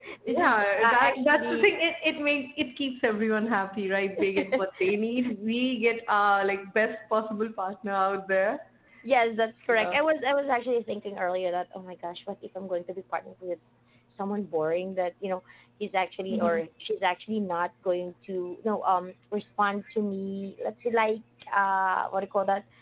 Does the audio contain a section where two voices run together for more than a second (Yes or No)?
Yes